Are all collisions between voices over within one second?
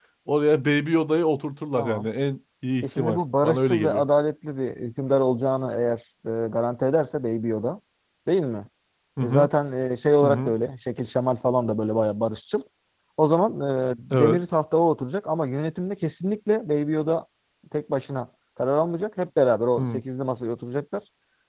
No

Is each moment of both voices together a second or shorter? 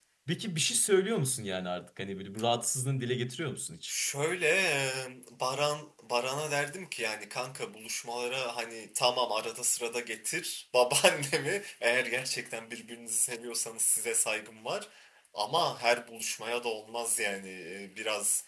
Yes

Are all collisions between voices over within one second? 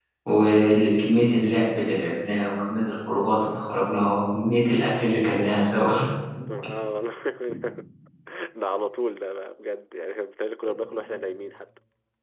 Yes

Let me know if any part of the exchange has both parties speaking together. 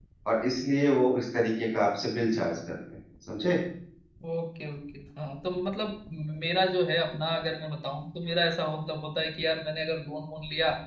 No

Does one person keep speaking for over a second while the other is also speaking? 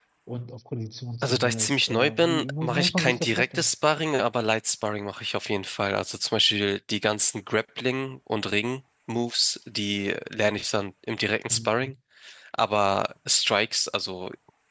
Yes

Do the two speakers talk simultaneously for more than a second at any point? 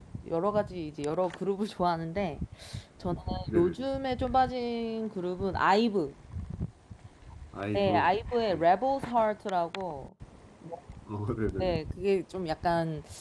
No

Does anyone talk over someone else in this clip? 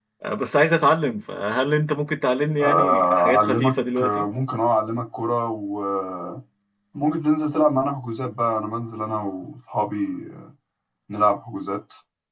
Yes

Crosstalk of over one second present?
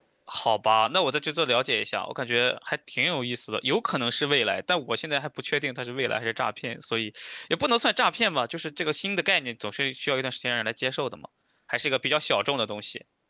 No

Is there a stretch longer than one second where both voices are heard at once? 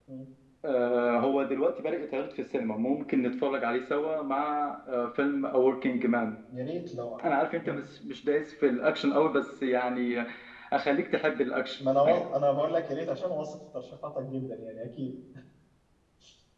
No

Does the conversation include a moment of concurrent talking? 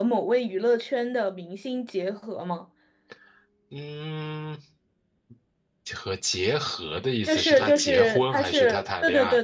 Yes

